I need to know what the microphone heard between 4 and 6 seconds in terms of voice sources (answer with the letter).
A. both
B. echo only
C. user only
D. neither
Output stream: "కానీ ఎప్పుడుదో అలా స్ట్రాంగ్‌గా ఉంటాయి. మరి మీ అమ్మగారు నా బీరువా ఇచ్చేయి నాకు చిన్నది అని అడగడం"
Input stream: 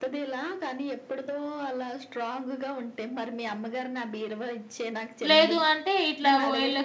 A